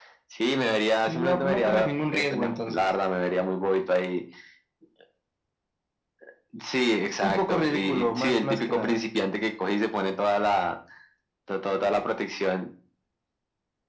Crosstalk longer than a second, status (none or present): present